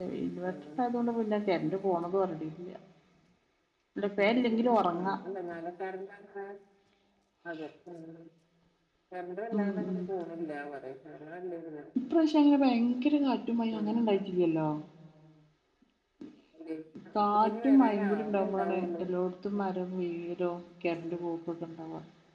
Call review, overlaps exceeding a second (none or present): present